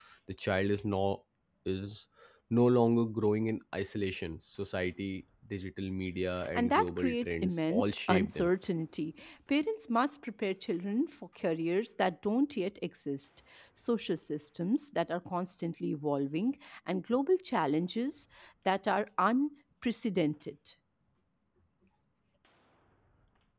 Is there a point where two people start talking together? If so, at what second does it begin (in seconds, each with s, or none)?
6.5 s